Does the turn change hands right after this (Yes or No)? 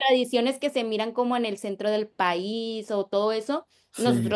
No